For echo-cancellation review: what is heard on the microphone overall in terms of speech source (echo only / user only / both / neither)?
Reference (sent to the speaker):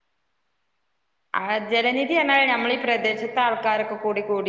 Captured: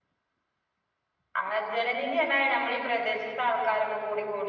echo only